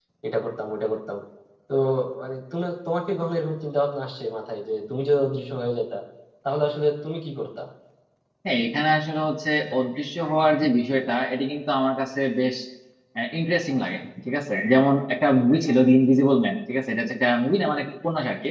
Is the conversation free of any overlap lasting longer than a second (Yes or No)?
Yes